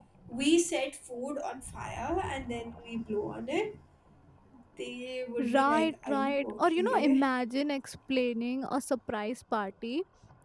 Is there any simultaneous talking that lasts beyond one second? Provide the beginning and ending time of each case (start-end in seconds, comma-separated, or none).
5.4-7.3